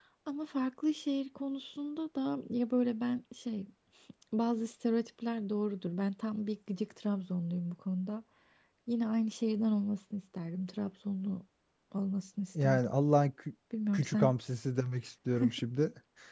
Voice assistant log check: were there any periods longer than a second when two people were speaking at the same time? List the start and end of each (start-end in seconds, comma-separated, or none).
none